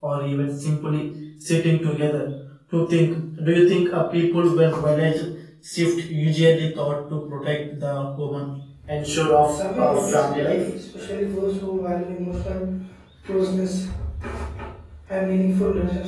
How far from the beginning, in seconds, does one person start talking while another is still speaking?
9.4 s

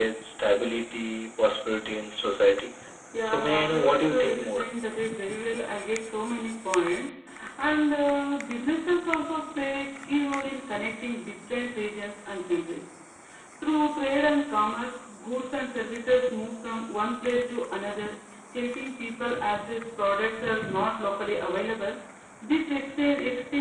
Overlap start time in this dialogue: 3.2 s

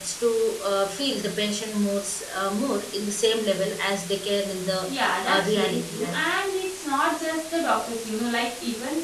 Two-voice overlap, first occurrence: 4.9 s

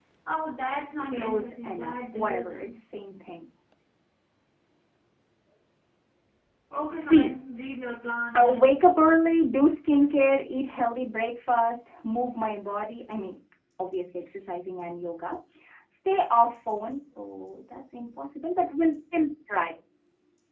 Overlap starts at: 1.0 s

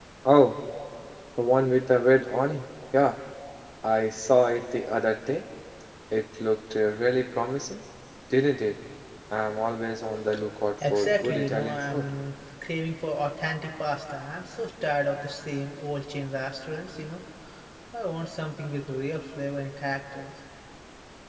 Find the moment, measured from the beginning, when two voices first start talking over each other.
10.8 s

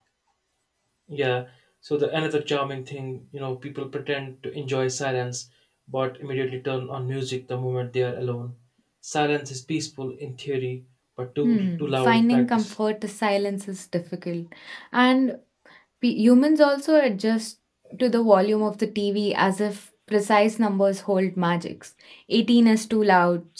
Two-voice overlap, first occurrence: 11.4 s

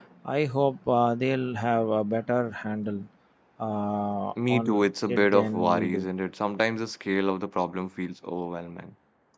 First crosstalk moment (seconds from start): 4.5 s

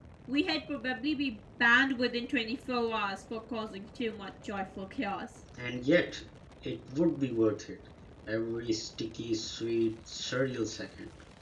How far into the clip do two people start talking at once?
none

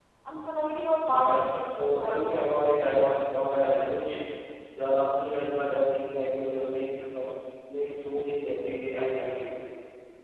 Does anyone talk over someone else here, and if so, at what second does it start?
1.1 s

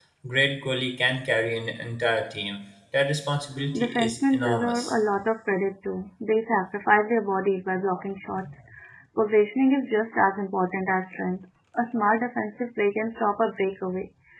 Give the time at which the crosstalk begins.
3.7 s

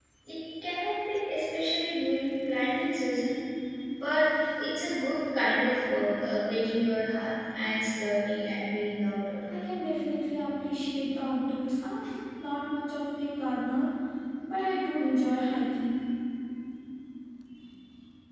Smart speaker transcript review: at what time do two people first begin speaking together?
none

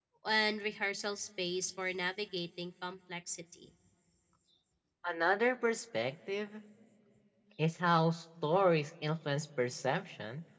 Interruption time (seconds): none

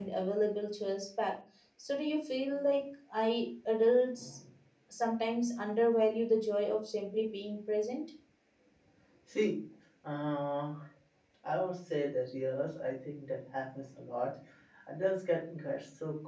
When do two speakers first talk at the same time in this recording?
none

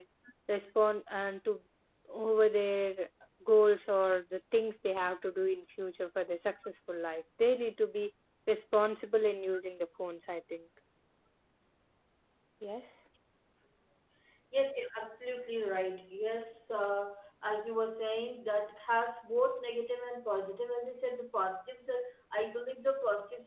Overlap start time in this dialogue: none

